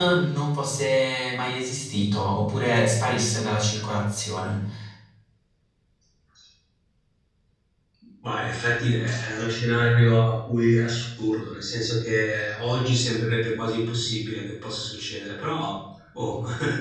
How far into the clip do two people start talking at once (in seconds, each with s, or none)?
none